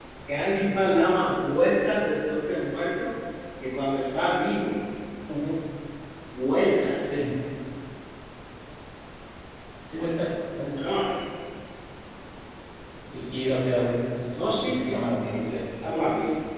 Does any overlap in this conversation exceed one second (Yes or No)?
Yes